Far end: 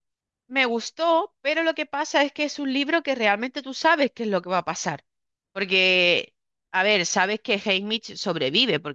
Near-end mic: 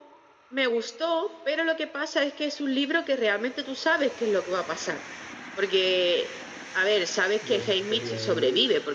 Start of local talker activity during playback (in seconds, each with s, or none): 7.4 s